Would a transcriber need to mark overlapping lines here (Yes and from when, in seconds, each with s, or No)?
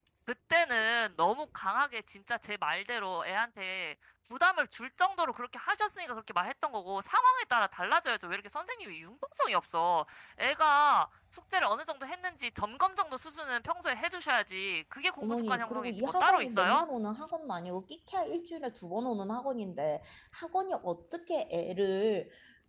Yes, from 15.2 s